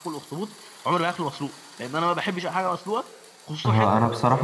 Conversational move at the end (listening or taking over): taking over